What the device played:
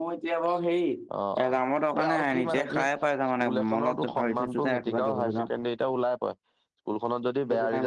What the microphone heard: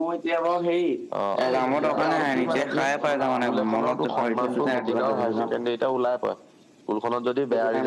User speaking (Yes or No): Yes